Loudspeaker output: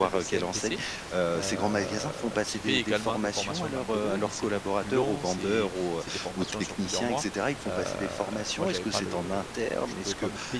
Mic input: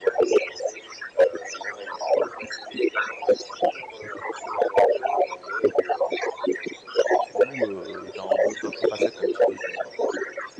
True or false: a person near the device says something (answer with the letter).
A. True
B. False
A